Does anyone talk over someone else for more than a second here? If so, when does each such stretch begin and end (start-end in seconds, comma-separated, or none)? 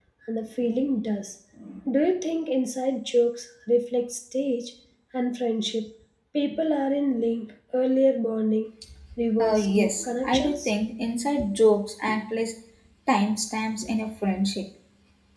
9.4-10.7